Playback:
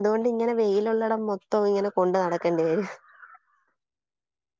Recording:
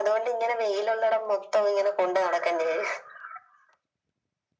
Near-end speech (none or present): none